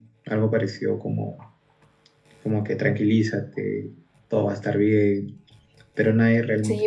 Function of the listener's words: taking over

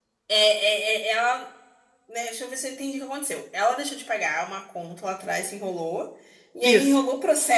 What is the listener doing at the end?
listening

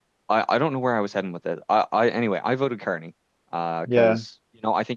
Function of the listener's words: listening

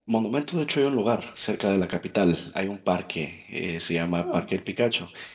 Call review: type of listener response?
listening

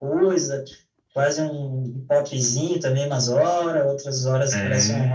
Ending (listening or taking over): listening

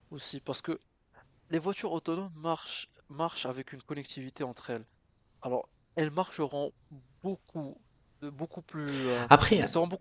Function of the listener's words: listening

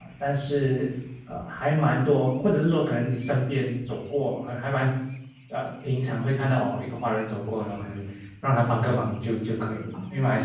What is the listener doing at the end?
listening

